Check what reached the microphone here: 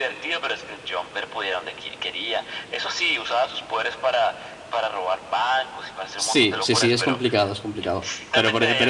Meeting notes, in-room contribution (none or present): present